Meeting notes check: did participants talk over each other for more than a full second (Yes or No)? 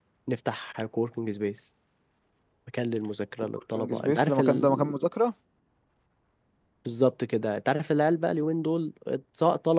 Yes